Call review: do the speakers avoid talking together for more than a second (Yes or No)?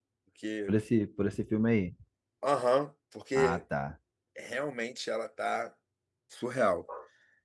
Yes